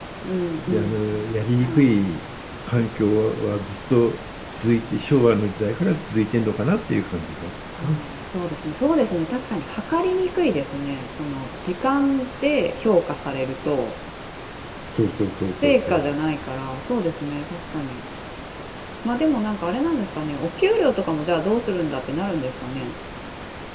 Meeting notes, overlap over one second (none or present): present